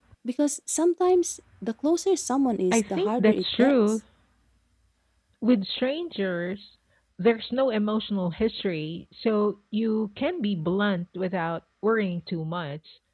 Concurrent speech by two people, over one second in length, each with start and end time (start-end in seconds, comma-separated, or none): 2.7-4.0